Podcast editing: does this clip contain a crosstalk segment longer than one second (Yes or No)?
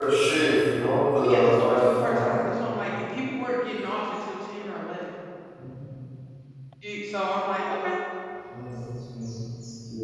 Yes